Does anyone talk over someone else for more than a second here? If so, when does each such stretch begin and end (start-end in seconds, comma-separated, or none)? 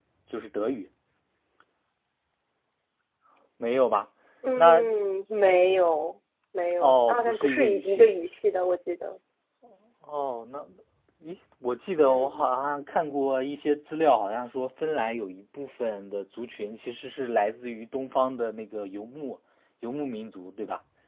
6.8-8.1